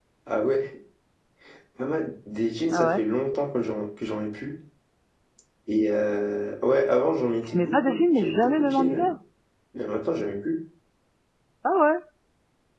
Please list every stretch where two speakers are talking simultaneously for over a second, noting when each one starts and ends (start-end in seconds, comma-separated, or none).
7.4-9.1